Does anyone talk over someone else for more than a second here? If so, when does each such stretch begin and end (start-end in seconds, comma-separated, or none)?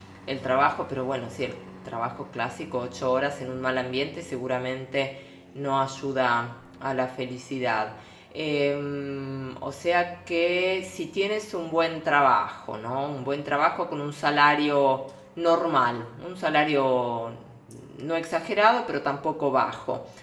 none